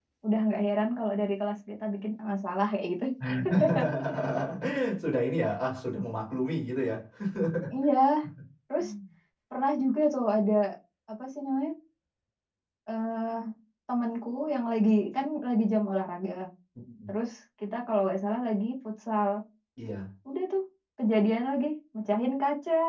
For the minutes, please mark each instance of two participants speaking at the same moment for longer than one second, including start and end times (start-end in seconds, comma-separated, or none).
none